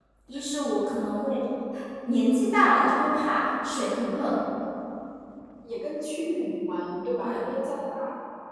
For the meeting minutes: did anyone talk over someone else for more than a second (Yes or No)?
No